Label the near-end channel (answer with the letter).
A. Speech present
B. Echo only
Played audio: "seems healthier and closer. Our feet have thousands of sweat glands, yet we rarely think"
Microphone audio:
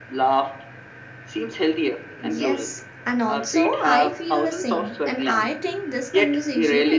A